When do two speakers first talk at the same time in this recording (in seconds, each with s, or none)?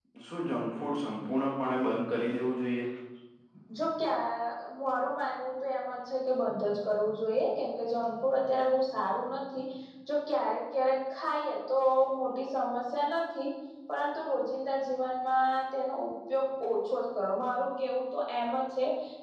none